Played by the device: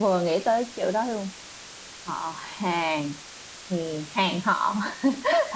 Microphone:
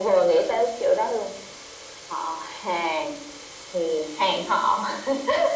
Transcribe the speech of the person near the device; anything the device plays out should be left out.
none

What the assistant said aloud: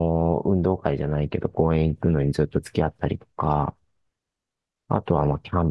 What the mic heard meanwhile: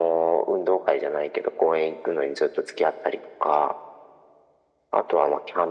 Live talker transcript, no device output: none

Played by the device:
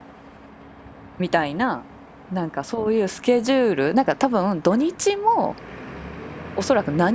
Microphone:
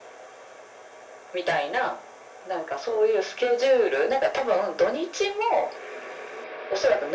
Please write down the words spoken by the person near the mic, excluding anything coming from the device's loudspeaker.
none

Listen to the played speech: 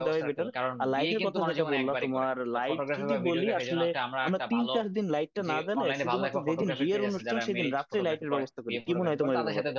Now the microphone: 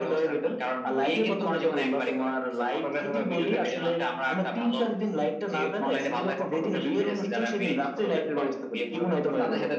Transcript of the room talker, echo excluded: none

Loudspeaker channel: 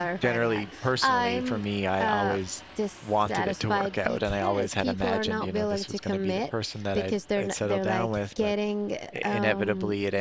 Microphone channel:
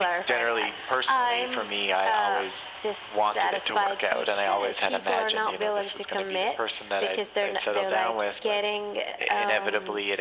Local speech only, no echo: none

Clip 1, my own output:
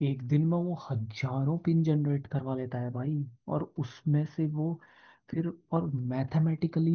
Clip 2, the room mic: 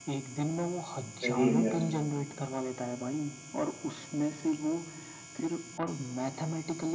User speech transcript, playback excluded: सही है यार

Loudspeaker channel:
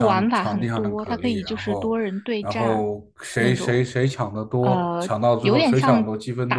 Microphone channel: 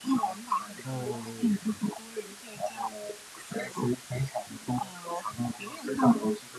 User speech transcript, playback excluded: 哦，

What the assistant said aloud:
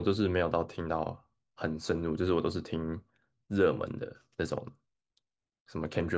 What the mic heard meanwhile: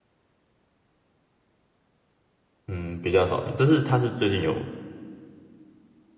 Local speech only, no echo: 嗯，比较少听。这是他是最近有

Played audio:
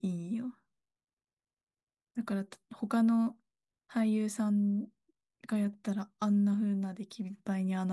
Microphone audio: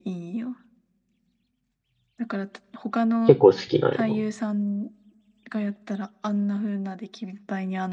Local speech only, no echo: 結構好きなんよ

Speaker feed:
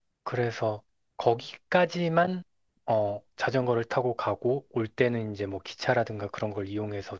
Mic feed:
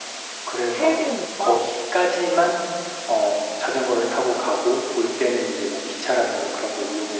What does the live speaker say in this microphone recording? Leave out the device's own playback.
세 배니까.

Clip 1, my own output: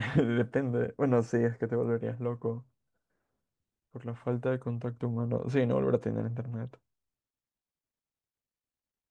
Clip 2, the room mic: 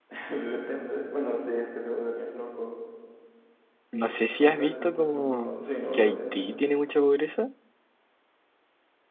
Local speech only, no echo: No sé si has visto como que Haití tiene mucha pobreza.

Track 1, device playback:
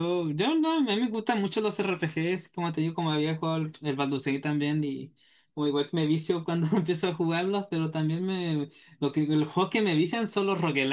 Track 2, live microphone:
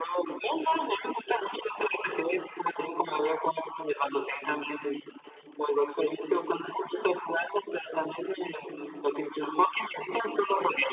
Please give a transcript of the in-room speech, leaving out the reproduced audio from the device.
none

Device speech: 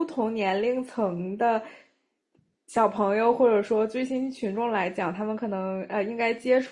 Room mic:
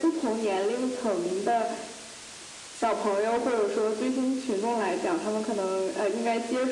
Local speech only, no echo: none

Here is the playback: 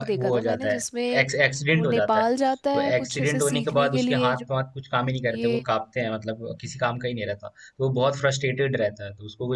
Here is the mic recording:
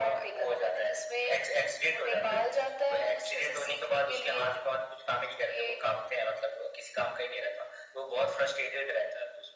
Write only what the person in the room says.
none

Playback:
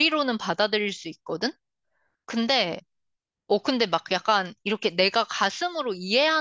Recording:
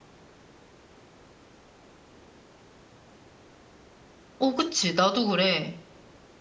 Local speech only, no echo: 어, 그치. 나도 그래.

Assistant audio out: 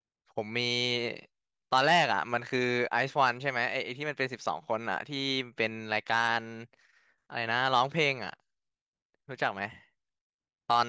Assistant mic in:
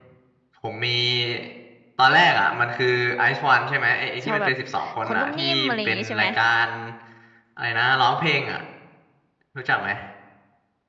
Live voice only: ชอบแบบคนนุ่มนิ่มอะไรอย่างงี้ใช่ไหม

